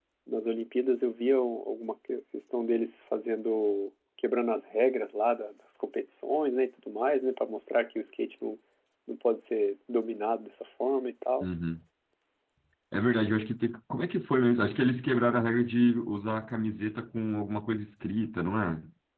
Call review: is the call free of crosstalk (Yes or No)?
Yes